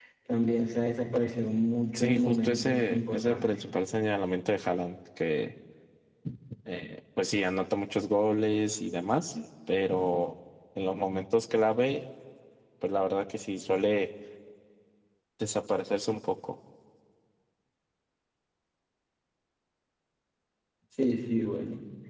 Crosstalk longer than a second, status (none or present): present